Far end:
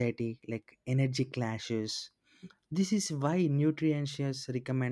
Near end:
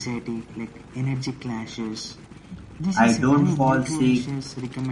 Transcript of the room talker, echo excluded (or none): I don't fall sick